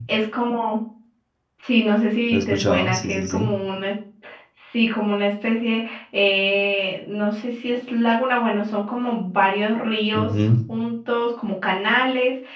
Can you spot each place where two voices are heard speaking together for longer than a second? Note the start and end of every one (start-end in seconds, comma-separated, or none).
2.3-3.5